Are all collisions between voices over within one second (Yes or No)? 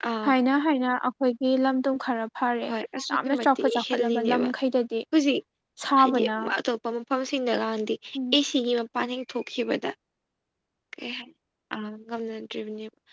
No